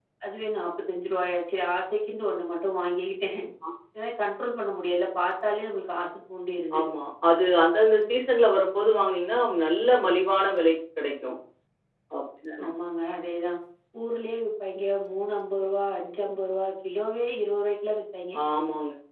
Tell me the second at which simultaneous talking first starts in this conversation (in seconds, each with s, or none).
none